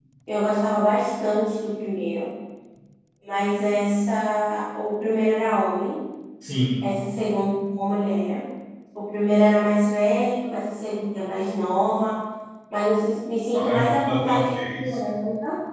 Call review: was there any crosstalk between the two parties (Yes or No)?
Yes